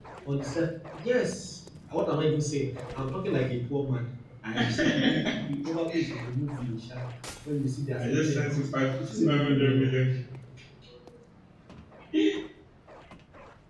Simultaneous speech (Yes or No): Yes